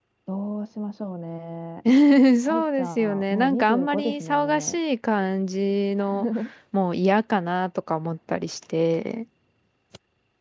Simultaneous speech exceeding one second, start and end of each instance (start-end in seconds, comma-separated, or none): 2.5-4.8